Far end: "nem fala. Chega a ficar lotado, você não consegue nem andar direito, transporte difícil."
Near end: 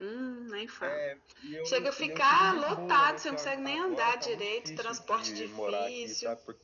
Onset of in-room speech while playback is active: 0.8 s

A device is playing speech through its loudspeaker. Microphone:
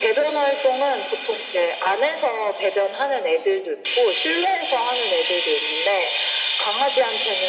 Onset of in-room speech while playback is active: none

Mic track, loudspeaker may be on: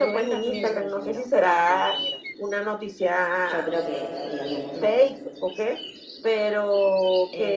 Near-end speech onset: 3.4 s

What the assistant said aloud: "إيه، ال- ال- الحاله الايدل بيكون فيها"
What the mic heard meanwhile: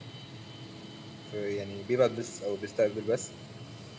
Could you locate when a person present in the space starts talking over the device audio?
1.2 s

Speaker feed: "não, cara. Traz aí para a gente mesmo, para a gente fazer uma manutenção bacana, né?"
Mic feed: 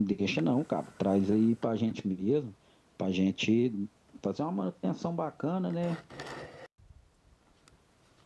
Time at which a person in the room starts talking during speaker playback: none

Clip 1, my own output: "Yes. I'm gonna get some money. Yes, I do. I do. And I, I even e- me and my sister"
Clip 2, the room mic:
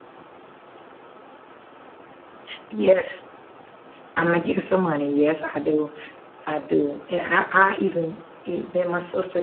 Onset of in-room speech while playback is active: none

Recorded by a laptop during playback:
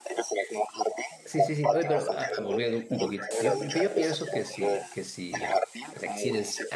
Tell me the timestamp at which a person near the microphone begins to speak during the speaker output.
1.2 s

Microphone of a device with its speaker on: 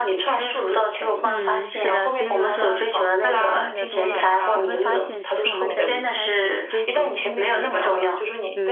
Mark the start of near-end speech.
1.2 s

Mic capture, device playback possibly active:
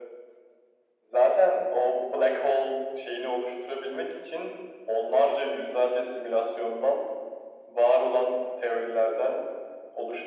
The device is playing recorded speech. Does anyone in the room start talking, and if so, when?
none

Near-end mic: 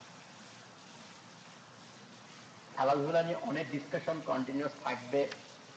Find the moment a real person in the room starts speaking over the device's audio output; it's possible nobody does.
2.8 s

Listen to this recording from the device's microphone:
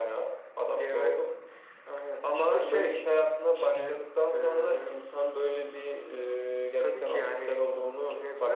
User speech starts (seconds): 3.5 s

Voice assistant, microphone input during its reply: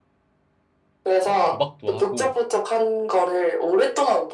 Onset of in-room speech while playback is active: 1.2 s

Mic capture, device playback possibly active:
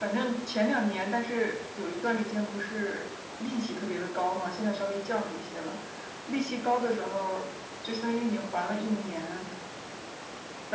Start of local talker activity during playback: none

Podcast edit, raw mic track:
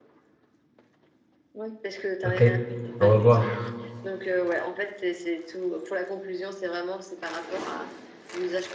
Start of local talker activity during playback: 2.2 s

